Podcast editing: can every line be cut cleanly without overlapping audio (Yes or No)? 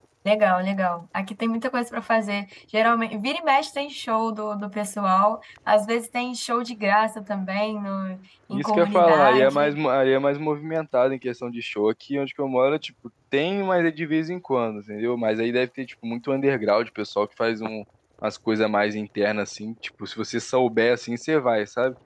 No